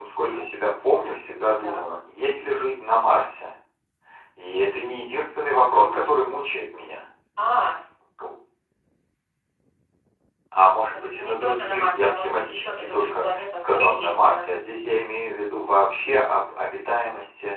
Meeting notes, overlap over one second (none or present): present